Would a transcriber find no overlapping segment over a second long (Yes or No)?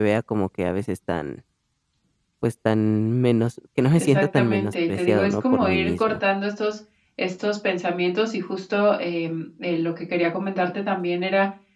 No